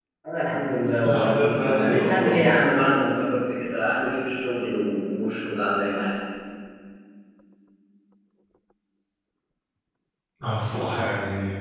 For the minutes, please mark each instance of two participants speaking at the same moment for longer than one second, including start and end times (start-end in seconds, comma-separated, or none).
1.1-2.5